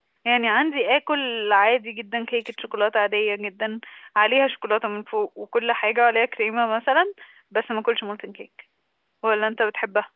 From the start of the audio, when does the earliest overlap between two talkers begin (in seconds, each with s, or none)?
none